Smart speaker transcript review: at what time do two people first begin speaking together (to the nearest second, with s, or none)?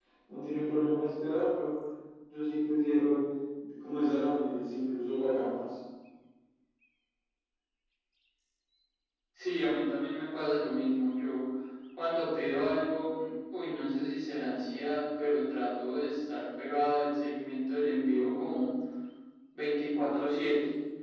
none